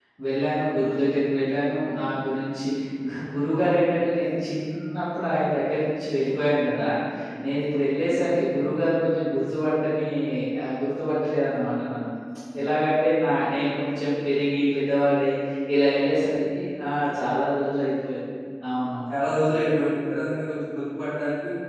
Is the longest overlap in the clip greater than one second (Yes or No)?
No